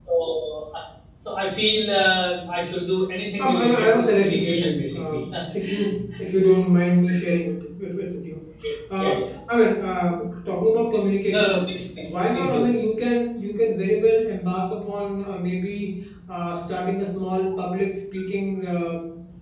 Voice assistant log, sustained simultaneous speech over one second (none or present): present